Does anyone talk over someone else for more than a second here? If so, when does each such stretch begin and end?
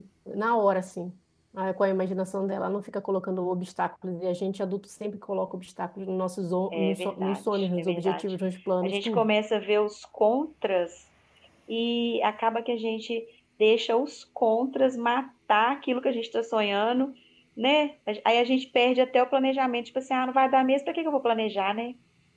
6.7-8.2

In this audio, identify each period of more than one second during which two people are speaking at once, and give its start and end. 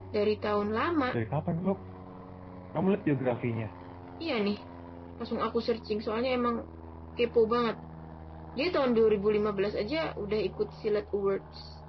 none

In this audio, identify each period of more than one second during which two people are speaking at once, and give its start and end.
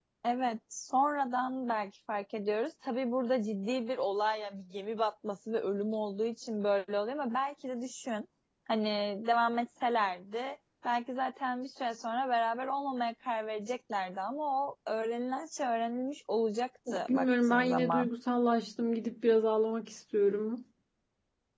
16.9-18.1

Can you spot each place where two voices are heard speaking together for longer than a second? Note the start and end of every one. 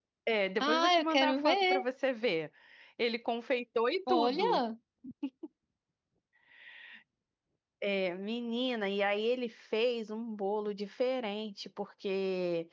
0.6-1.8

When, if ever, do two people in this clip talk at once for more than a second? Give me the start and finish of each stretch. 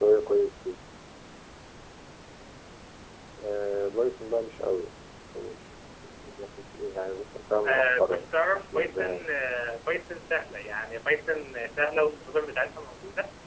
7.6-9.3

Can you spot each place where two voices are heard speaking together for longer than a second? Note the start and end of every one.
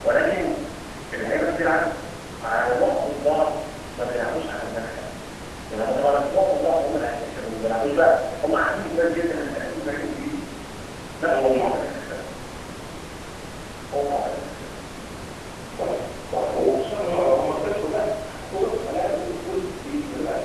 none

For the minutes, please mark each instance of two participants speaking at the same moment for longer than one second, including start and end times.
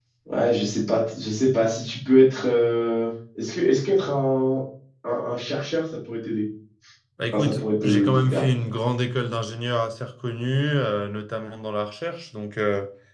7.3-8.6

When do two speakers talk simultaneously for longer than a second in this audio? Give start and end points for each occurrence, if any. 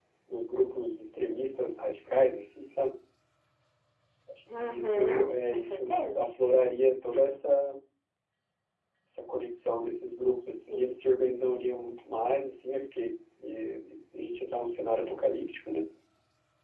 4.5-6.2

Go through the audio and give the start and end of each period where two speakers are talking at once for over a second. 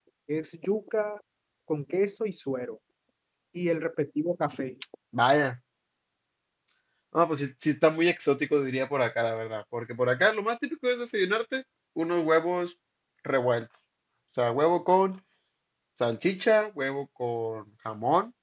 none

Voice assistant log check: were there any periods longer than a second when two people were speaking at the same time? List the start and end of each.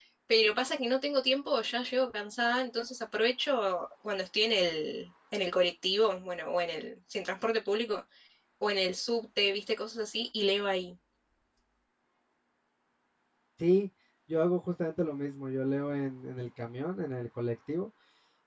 none

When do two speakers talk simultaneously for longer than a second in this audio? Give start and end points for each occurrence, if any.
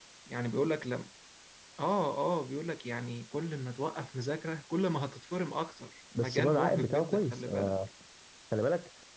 6.2-7.7

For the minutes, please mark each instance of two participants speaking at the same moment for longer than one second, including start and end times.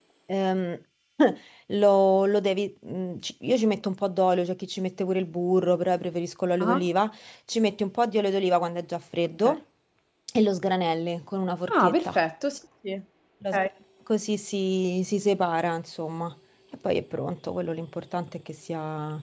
none

